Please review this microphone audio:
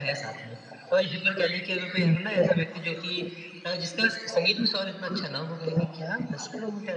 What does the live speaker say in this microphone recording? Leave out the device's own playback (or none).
none